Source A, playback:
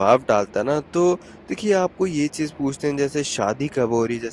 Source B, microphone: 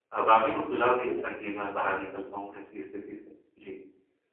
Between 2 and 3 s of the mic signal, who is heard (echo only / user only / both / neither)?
user only